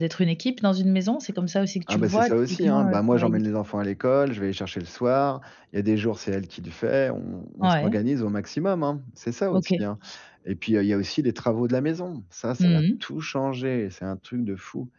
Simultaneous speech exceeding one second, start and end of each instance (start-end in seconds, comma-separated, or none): 1.9-3.4